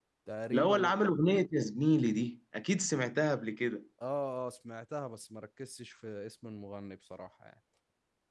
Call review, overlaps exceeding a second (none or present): none